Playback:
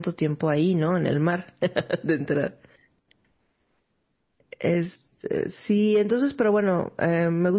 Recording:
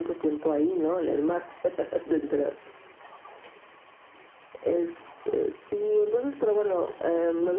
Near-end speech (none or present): none